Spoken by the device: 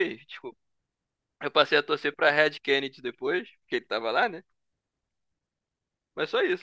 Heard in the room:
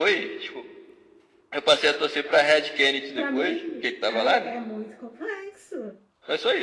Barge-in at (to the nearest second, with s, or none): 3 s